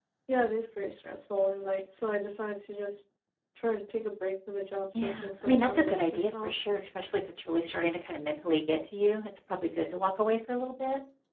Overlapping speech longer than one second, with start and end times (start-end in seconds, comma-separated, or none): 4.9-6.5